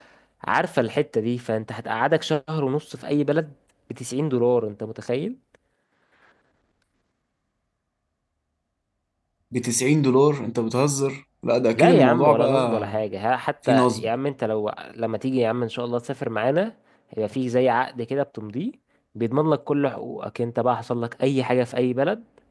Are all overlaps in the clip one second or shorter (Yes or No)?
No